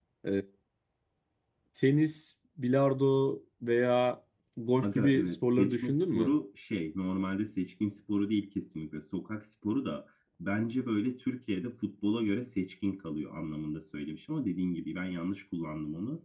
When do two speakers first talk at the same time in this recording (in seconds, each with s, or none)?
4.8 s